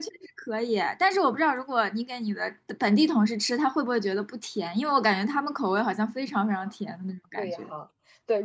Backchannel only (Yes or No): No